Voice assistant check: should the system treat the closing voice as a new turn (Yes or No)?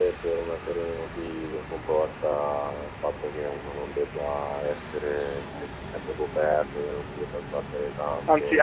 Yes